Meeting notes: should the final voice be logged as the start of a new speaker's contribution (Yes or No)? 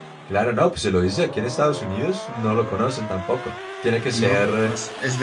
Yes